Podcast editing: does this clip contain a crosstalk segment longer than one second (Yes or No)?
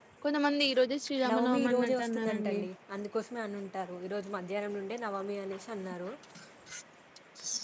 Yes